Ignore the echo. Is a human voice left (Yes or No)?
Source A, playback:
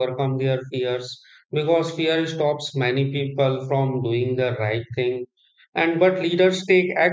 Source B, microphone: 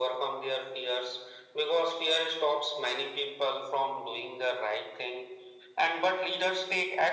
No